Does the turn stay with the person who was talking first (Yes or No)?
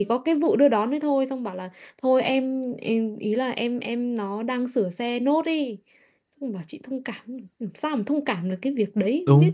No